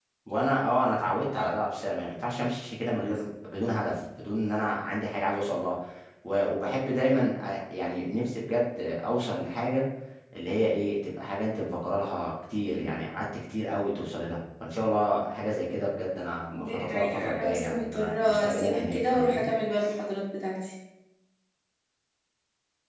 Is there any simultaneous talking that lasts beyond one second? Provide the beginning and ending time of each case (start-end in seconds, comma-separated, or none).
16.5-19.5